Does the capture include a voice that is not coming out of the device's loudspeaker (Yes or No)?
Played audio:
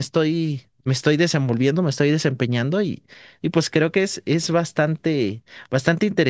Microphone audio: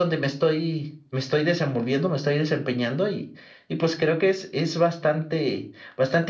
No